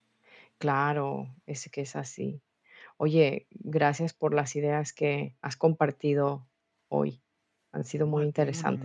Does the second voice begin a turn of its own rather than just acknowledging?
Yes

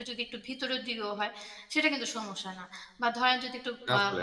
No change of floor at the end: Yes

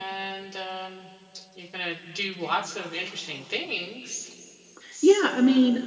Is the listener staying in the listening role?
No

